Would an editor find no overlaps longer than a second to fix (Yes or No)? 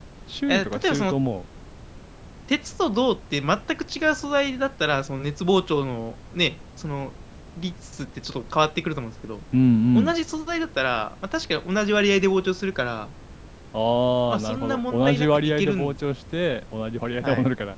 No